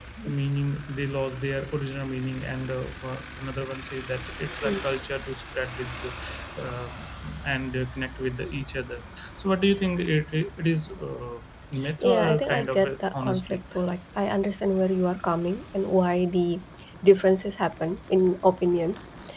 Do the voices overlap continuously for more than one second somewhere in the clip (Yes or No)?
Yes